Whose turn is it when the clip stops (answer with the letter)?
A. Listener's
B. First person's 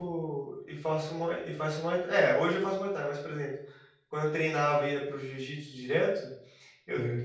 B